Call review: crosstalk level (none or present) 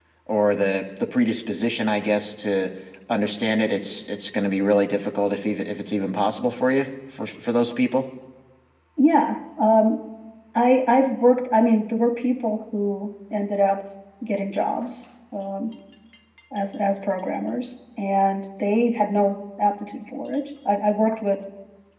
none